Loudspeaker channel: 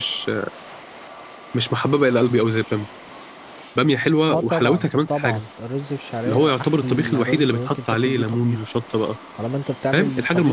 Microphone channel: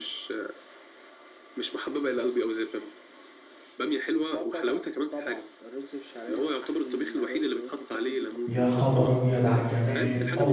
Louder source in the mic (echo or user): user